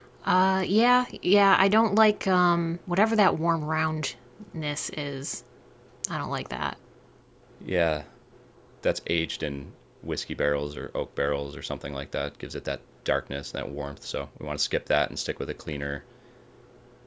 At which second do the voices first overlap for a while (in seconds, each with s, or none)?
none